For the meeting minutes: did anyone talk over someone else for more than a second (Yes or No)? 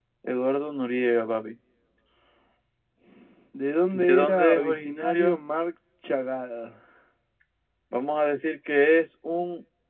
Yes